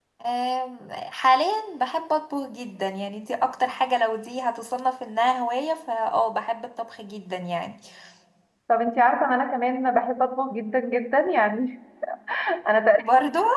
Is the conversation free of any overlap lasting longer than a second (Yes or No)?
Yes